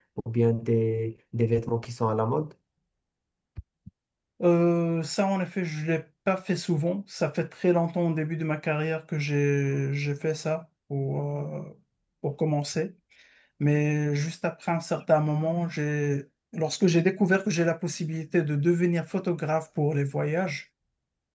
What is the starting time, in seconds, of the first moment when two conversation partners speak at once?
none

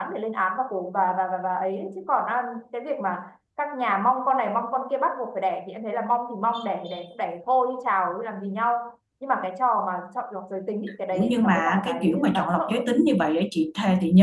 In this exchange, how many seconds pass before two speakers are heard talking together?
11.1 s

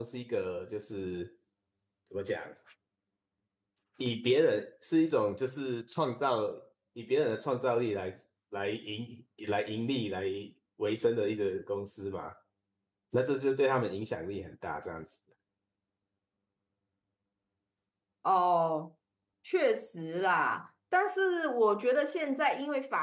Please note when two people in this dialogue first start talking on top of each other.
none

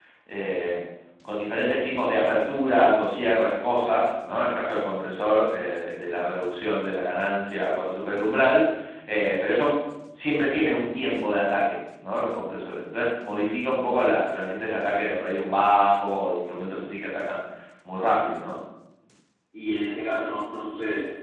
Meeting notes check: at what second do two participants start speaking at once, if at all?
none

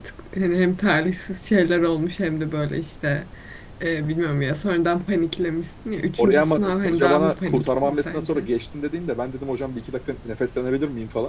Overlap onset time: 6.2 s

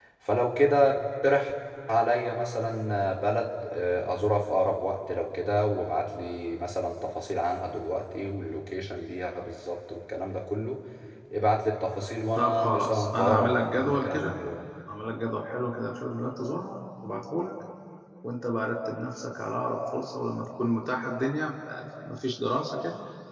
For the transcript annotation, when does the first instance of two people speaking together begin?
12.4 s

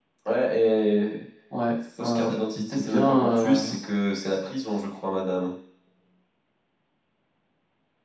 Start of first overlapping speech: 2.0 s

